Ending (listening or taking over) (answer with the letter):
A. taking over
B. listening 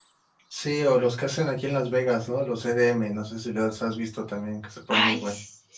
A